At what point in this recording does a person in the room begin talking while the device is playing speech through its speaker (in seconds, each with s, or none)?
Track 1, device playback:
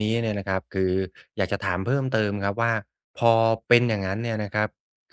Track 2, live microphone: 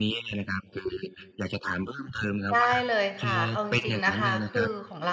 2.5 s